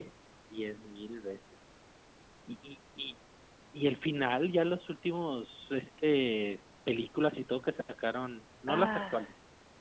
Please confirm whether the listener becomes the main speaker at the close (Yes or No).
No